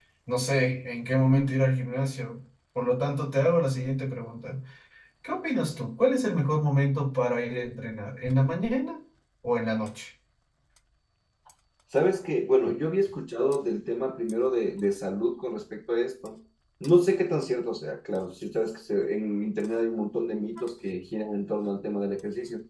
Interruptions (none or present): none